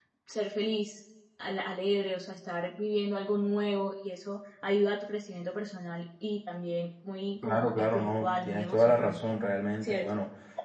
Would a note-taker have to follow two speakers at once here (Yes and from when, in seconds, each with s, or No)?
Yes, from 7.4 s